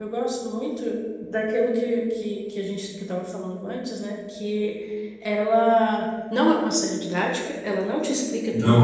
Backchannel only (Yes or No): Yes